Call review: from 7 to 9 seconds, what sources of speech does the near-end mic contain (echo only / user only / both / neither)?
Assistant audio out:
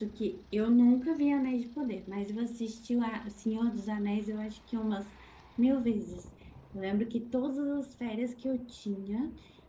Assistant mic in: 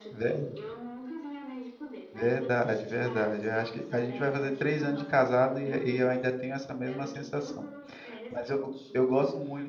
both